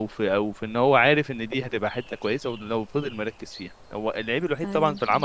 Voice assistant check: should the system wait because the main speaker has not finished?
Yes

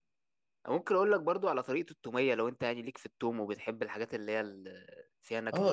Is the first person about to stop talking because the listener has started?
Yes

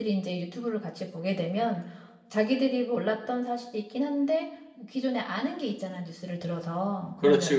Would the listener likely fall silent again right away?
Yes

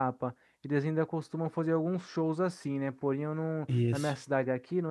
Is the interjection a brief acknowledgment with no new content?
Yes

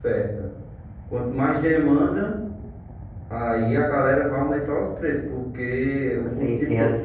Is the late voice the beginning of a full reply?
Yes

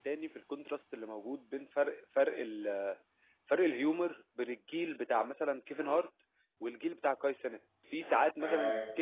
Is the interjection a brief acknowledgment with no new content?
Yes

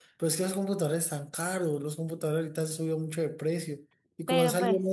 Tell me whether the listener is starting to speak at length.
No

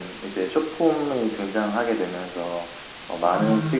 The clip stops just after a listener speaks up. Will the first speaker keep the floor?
Yes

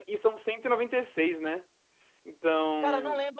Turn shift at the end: Yes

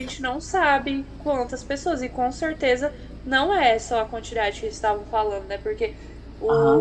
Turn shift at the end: No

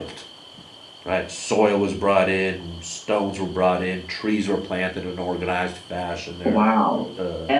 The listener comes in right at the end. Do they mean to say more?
Yes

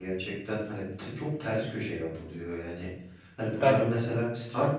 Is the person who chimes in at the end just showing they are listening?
Yes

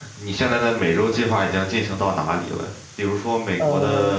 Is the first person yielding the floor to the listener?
No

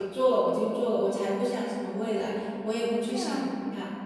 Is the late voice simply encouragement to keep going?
Yes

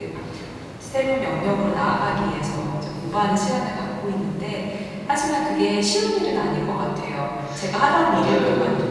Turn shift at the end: No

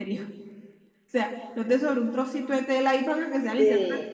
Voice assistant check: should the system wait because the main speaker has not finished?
Yes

